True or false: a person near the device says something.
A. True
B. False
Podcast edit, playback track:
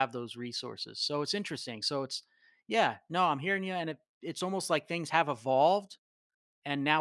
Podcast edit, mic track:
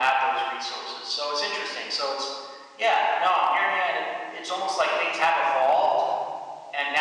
B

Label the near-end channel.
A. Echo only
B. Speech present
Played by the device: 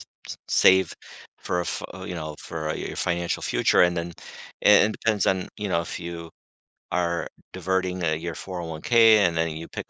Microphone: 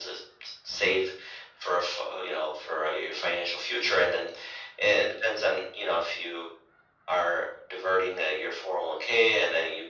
A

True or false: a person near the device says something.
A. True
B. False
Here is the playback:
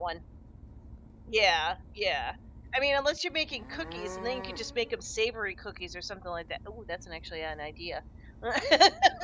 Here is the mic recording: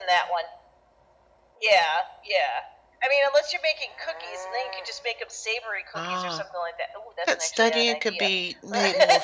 A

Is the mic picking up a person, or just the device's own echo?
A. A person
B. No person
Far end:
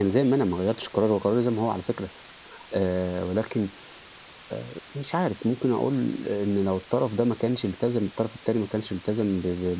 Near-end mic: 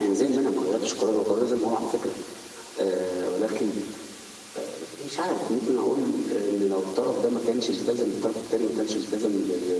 B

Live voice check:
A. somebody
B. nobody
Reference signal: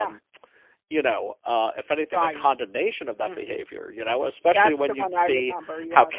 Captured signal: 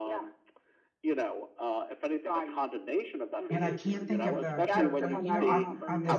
A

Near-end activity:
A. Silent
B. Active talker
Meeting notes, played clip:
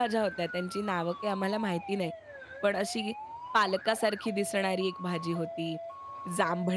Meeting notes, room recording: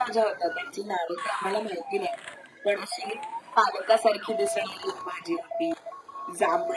A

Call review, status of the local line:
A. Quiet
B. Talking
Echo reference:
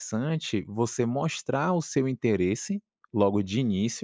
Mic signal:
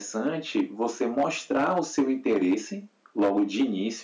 A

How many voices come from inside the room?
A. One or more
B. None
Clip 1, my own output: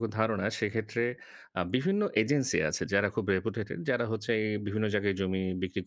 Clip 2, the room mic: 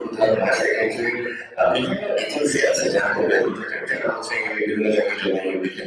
B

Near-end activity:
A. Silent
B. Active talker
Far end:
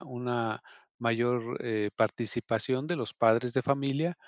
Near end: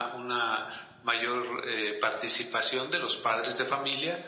A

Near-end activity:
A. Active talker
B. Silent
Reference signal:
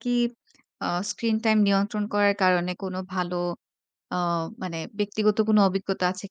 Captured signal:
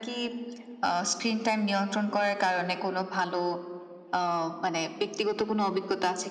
B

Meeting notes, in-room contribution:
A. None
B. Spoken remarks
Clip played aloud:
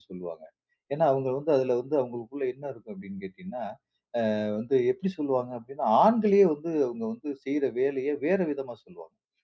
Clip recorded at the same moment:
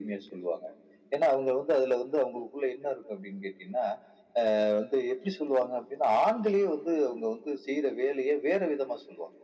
A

